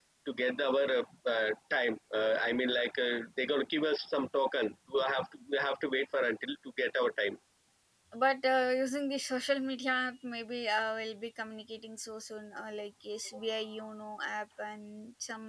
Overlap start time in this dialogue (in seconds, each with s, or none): none